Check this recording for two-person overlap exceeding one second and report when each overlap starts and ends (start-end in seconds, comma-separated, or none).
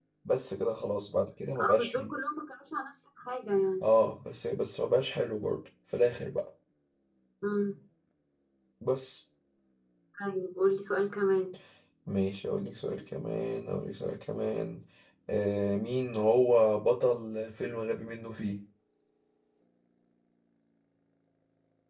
none